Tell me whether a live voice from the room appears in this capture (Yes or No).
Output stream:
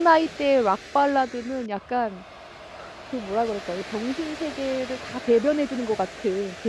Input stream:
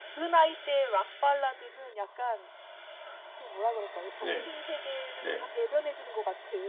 Yes